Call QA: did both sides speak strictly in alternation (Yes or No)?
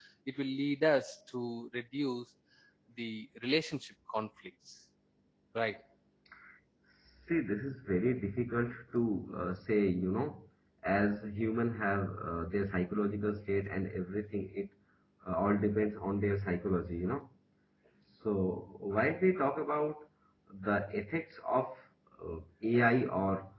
Yes